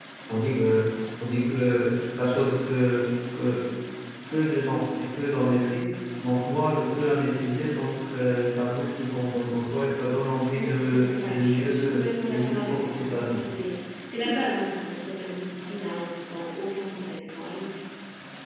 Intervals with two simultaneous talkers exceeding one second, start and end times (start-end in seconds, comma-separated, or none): 10.5-13.4